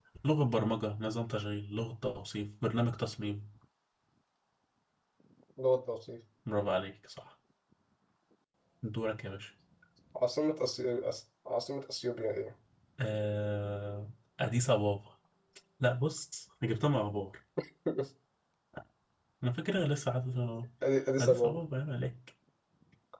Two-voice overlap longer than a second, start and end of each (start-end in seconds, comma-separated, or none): none